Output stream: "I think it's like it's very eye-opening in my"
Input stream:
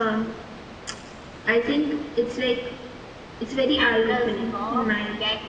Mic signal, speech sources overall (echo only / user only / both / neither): both